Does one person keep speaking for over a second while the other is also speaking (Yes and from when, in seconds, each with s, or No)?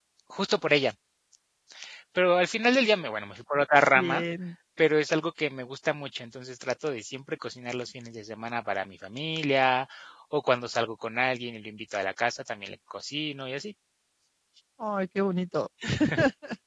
No